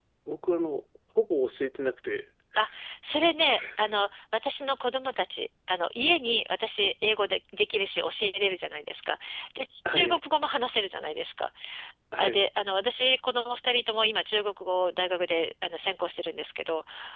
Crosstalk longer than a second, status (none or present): none